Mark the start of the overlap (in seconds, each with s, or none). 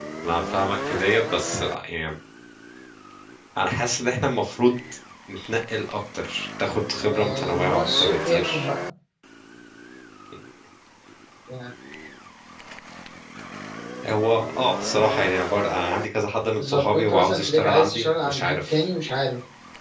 7.0 s